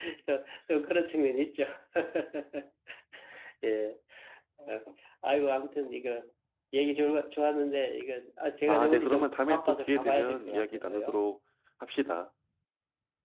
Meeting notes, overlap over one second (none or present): present